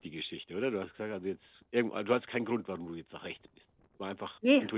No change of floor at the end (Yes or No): No